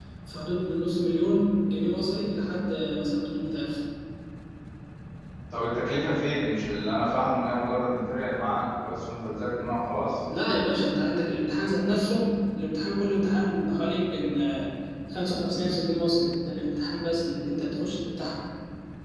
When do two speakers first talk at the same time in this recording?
none

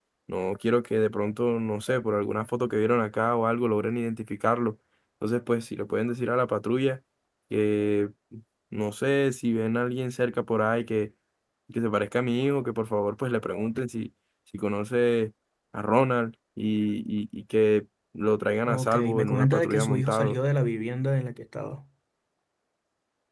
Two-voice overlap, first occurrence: 18.6 s

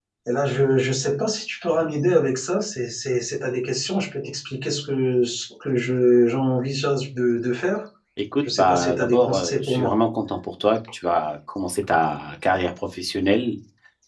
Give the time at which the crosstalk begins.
8.4 s

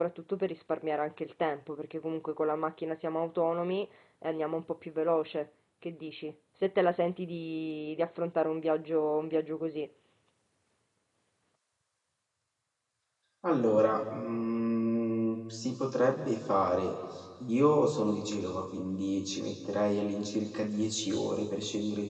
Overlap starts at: none

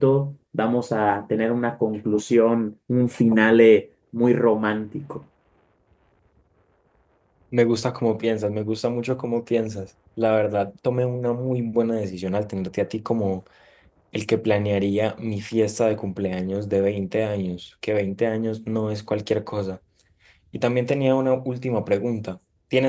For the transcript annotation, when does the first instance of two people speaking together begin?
none

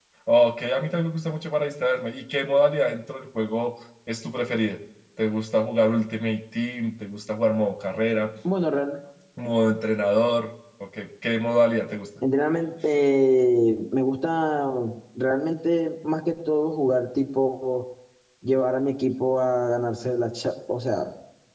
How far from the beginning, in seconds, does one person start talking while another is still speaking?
none

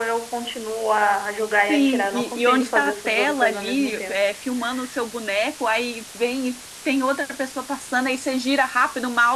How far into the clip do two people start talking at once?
1.7 s

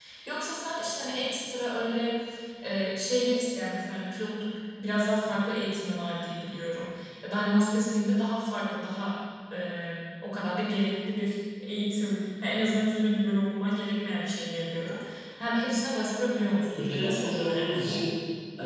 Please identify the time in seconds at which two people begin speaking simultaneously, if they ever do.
16.5 s

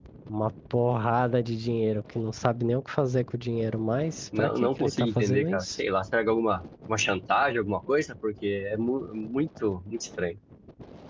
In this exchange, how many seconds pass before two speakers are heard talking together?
4.3 s

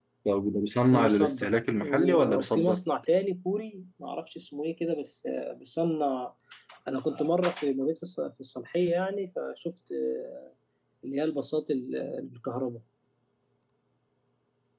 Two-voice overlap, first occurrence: 0.9 s

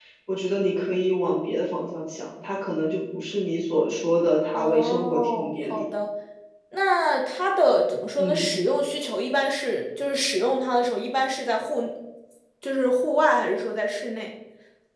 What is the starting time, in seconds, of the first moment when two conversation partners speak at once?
4.5 s

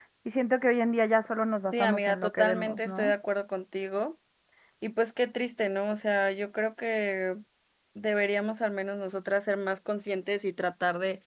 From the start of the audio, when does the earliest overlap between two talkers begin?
1.7 s

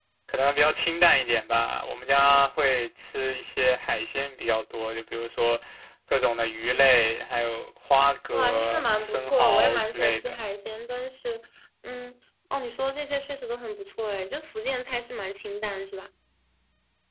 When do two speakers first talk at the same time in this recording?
8.3 s

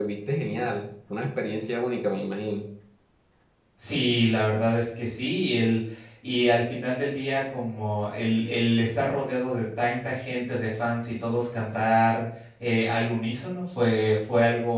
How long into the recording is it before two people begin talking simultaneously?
none

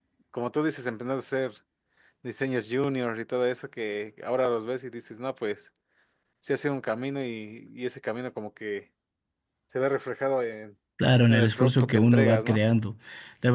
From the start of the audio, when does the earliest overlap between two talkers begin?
11.3 s

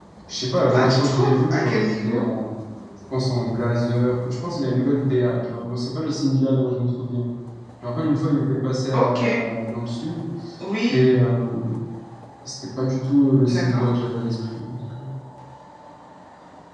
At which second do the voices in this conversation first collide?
0.7 s

